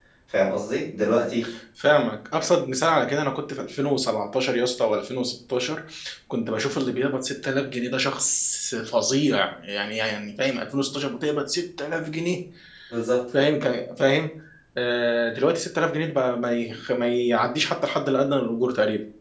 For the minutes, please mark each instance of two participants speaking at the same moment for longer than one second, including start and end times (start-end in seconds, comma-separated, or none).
none